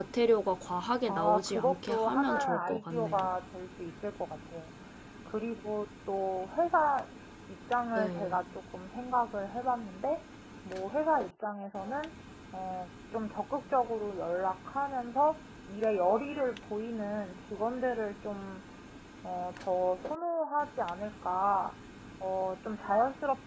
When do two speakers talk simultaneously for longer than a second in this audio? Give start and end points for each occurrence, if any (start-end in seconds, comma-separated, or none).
1.1-3.3